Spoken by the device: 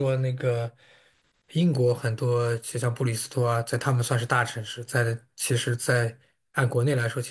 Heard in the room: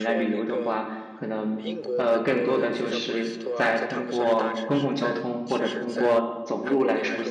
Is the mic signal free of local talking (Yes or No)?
No